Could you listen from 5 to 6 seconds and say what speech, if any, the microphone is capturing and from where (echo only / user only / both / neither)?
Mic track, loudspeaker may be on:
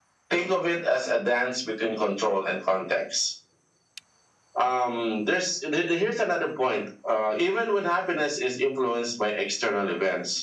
echo only